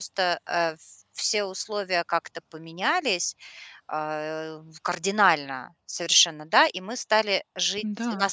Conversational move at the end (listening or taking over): listening